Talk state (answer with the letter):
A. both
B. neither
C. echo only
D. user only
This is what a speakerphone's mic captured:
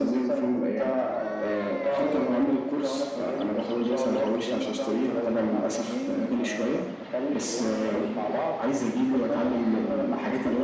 C